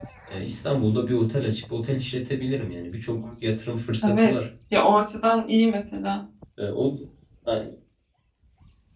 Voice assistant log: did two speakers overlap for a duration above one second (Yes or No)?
No